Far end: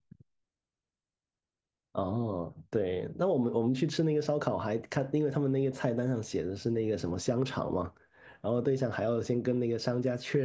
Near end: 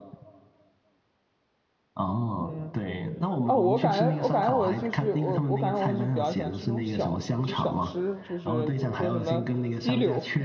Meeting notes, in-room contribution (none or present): present